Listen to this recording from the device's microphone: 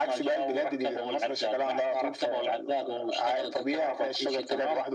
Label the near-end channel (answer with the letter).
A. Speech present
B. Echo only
B